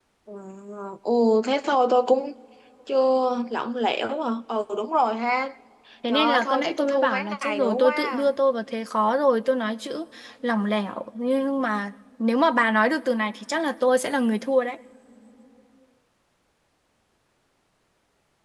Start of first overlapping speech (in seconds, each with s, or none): 6.1 s